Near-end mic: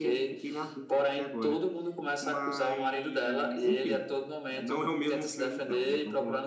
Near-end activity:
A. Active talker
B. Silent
A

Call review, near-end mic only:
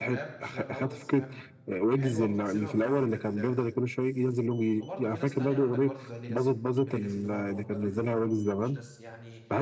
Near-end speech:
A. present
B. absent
A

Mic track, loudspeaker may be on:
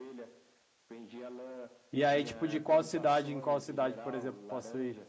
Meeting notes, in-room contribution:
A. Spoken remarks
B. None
A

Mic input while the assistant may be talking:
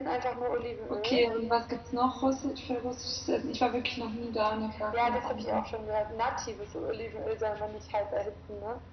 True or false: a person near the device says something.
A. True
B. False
A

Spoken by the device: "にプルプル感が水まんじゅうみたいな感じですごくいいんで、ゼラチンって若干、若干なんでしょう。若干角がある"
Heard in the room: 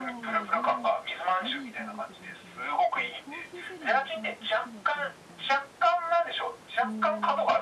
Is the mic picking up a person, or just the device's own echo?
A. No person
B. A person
B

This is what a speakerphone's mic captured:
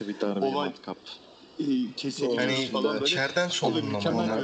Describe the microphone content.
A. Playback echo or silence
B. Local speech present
B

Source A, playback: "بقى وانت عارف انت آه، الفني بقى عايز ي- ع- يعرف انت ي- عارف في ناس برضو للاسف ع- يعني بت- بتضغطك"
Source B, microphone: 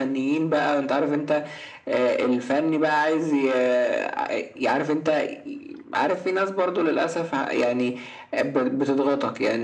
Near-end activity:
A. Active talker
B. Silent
B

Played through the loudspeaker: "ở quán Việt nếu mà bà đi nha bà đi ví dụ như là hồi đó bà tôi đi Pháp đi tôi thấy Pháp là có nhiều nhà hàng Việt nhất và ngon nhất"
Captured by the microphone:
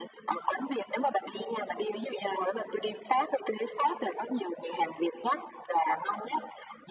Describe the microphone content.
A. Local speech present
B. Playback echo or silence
B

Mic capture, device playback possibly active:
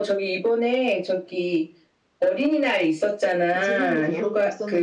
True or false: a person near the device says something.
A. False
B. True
B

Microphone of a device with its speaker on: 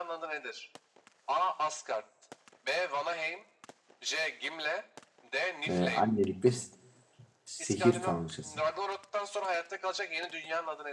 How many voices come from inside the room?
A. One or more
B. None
A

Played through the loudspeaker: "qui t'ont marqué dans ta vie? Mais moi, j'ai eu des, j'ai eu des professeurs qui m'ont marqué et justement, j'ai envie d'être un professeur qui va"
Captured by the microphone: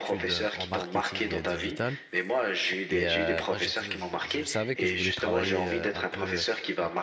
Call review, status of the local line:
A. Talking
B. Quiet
A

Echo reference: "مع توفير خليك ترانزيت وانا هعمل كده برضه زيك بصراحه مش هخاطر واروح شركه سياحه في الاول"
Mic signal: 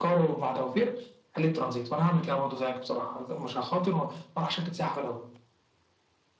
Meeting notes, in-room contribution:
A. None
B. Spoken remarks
A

